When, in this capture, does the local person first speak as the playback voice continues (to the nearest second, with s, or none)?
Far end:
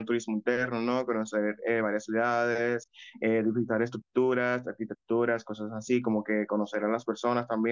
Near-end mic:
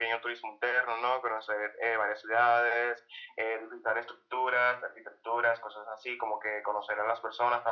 none